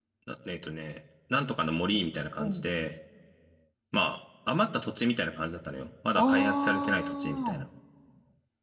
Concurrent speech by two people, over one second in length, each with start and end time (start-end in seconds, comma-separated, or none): 6.2-7.7